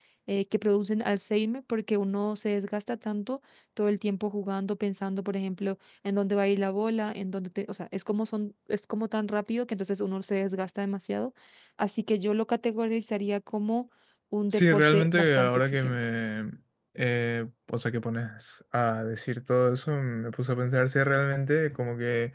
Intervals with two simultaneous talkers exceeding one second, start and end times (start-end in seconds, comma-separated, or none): 14.5-16.0